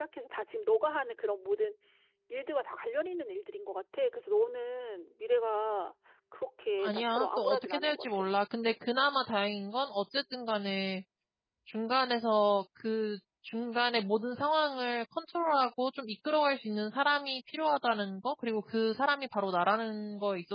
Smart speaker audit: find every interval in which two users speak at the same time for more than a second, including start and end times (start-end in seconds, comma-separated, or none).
6.8-8.3